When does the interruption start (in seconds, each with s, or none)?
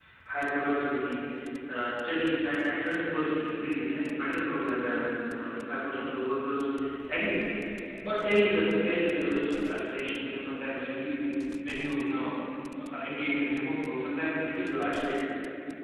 none